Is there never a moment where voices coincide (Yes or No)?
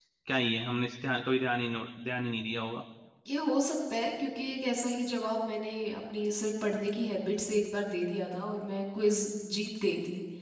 Yes